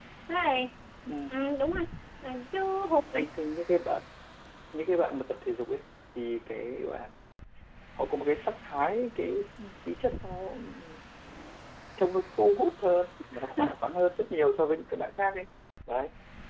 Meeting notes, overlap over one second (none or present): none